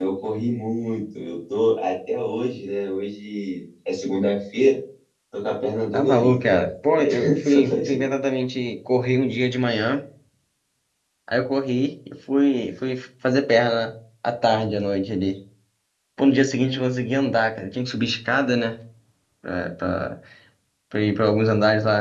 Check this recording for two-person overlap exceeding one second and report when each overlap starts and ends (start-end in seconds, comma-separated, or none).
5.9-8.0